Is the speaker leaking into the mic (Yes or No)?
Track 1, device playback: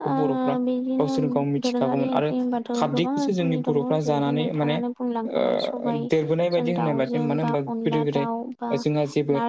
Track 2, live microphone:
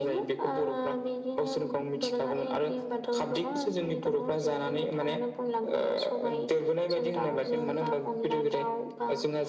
Yes